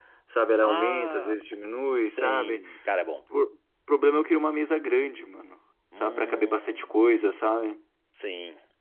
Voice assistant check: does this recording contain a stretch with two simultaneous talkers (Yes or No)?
Yes